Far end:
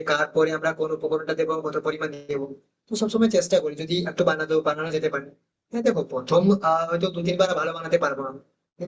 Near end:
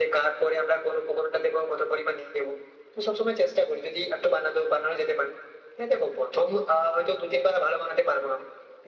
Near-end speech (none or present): none